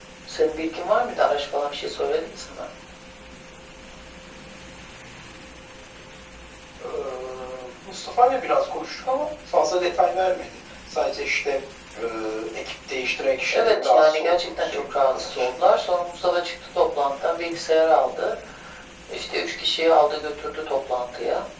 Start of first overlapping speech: 13.5 s

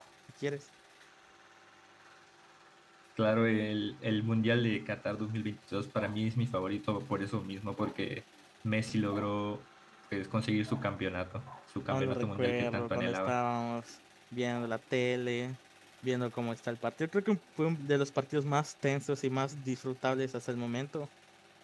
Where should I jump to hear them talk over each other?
11.9 s

